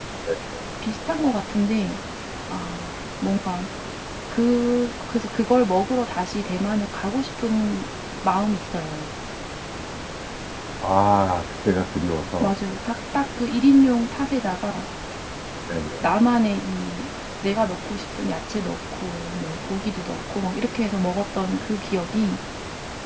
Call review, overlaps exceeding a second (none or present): none